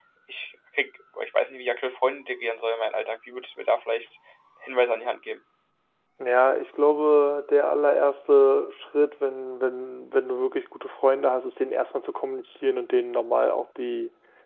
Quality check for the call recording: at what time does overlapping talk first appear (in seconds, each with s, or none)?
none